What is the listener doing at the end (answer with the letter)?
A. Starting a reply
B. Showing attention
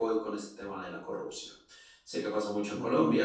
B